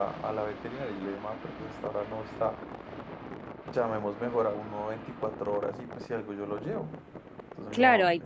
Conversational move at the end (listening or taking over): taking over